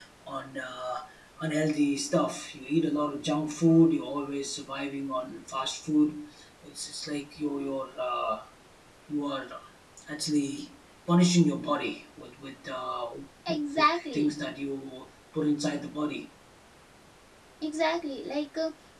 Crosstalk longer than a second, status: none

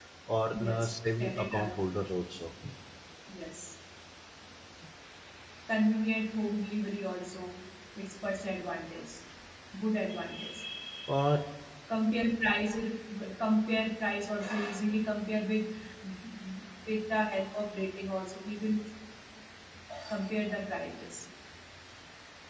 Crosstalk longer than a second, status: present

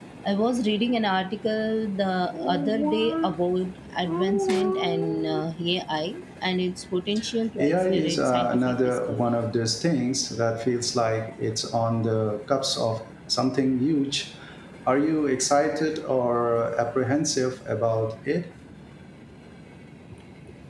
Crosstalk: present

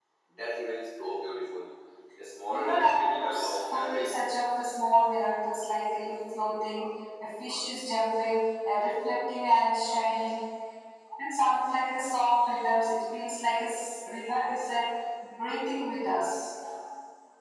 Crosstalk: present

